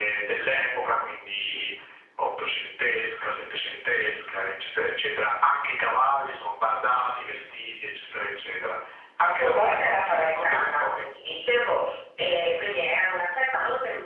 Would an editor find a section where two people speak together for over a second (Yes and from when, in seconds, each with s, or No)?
Yes, from 9.2 s